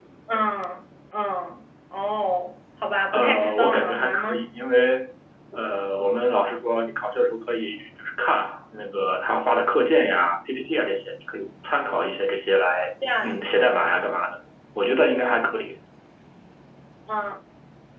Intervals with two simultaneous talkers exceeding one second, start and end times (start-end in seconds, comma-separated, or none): 3.1-4.5